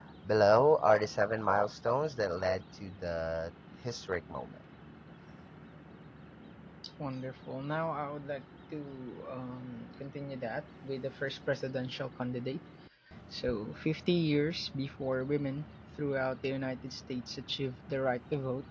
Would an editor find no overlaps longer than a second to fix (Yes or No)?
Yes